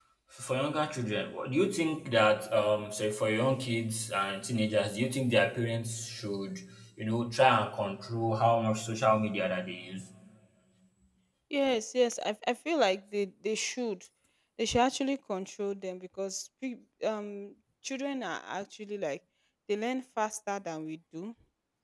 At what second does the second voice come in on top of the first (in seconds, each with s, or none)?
none